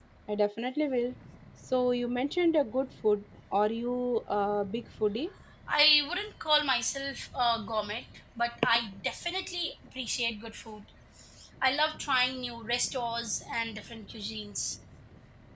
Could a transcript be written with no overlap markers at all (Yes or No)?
Yes